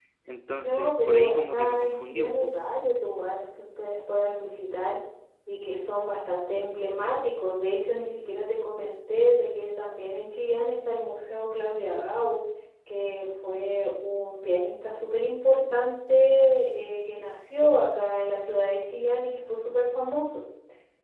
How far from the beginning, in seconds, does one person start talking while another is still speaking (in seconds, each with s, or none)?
0.6 s